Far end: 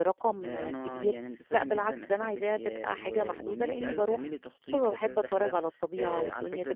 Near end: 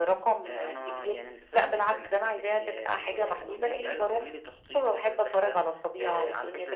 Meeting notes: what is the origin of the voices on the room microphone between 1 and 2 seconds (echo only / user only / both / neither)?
echo only